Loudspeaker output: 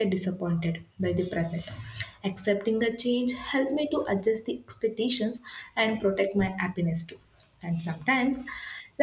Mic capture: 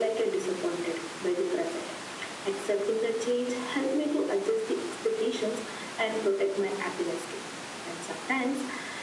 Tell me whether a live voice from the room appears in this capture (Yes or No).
No